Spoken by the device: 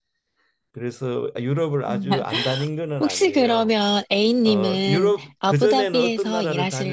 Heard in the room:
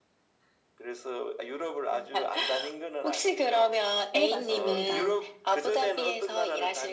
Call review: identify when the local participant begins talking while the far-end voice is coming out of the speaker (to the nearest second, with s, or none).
4 s